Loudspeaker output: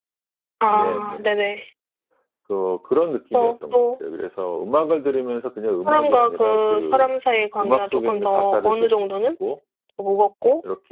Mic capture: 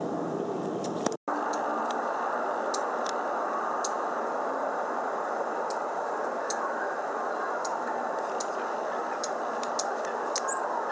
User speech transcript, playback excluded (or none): none